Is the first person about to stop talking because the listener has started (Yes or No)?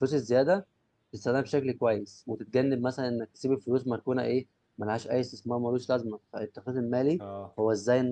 No